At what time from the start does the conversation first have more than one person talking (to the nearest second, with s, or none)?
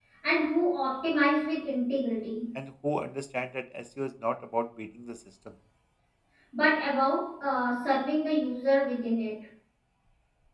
none